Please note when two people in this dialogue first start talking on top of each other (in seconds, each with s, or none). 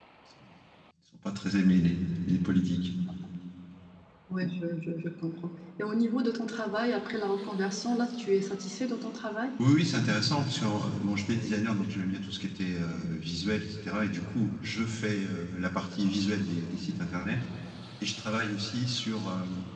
none